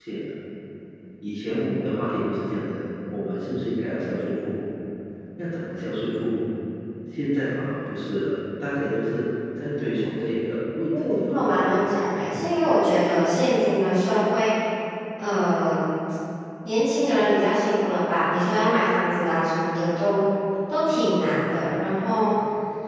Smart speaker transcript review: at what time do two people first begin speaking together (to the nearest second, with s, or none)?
11 s